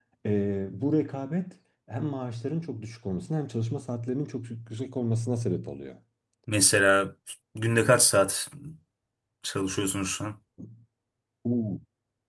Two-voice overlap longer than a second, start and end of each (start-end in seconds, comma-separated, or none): none